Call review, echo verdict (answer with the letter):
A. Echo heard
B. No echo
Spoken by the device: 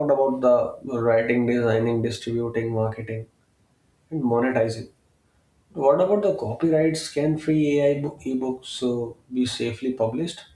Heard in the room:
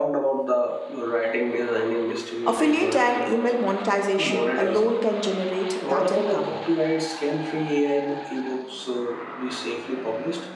A